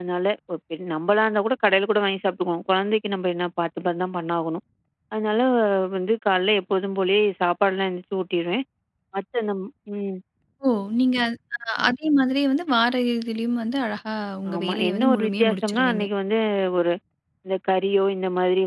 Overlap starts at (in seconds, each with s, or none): 14.4 s